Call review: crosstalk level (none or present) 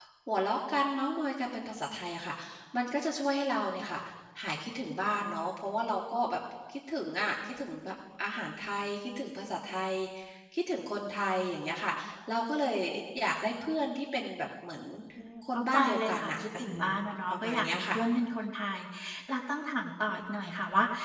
present